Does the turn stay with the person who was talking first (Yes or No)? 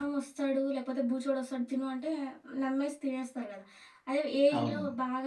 Yes